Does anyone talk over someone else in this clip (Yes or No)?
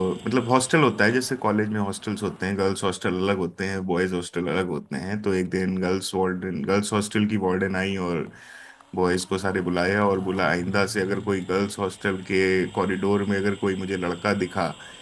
No